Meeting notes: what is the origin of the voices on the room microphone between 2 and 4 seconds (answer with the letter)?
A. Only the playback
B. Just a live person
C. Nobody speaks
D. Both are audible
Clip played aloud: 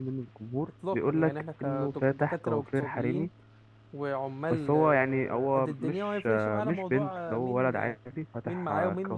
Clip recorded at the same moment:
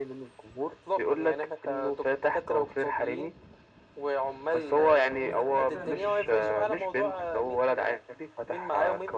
A